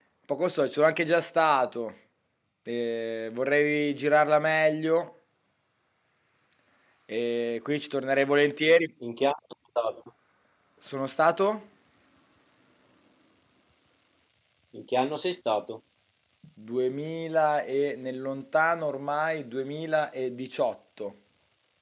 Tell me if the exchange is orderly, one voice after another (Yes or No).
Yes